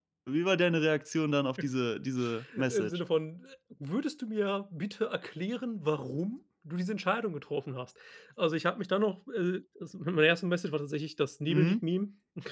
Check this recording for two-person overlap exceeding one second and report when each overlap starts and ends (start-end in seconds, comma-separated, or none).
none